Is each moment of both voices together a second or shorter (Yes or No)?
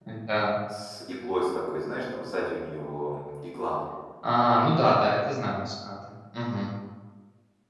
Yes